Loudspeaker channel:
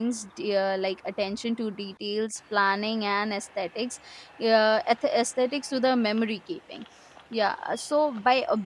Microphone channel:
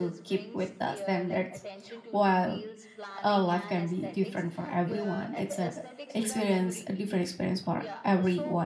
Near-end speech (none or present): present